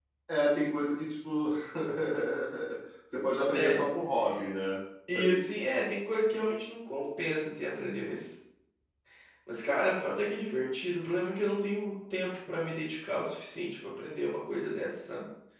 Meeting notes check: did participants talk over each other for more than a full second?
No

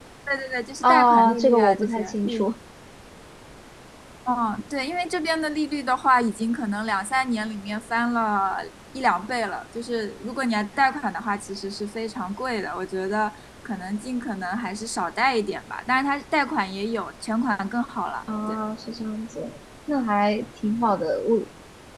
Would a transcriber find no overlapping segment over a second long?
No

